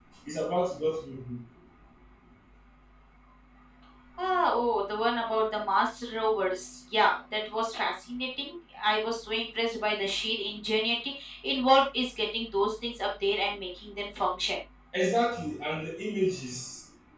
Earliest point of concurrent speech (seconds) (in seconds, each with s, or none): none